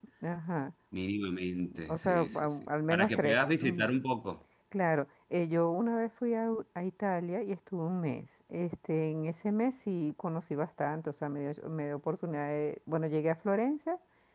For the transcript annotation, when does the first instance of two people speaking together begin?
2 s

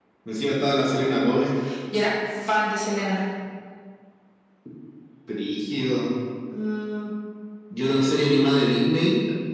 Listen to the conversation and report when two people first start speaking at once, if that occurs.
none

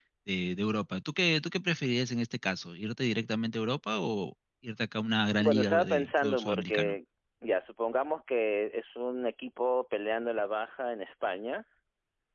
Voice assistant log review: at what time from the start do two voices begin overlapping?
5 s

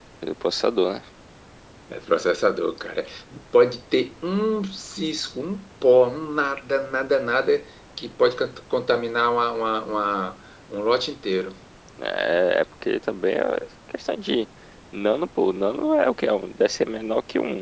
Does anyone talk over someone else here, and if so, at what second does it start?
none

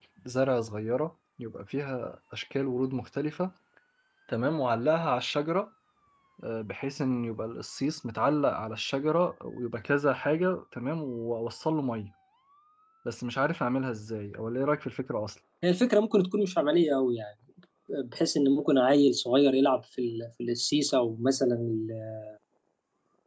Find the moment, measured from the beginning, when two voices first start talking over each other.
none

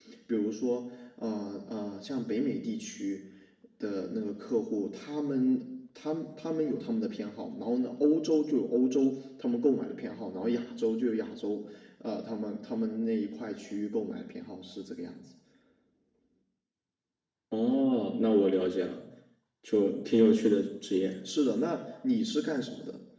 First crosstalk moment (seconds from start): none

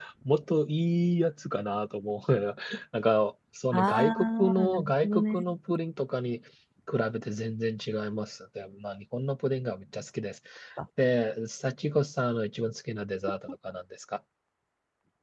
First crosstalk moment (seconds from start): 4 s

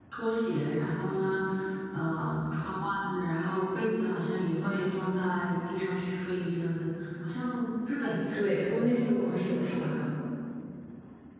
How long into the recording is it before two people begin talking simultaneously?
8 s

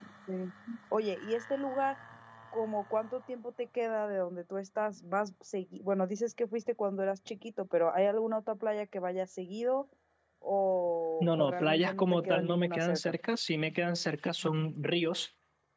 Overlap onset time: 11 s

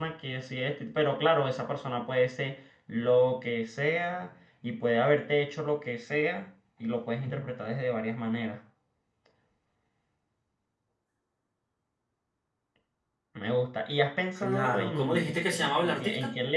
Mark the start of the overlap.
14 s

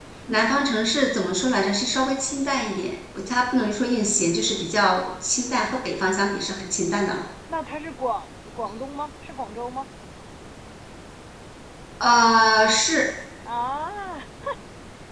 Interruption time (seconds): none

